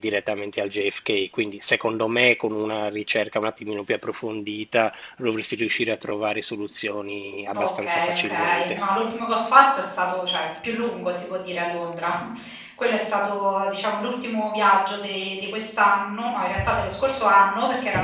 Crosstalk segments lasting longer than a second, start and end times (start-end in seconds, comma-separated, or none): 7.5-8.8